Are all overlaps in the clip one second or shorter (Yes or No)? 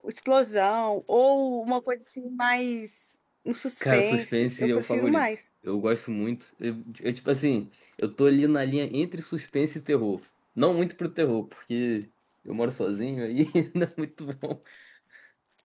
No